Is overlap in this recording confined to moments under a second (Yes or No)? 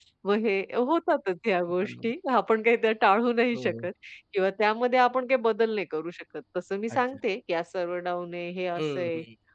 Yes